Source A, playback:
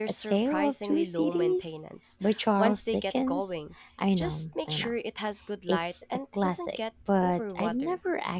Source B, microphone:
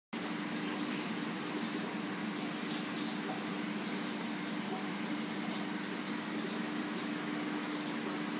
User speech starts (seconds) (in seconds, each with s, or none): none